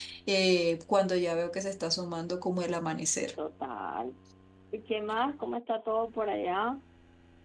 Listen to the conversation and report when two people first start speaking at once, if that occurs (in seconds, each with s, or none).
none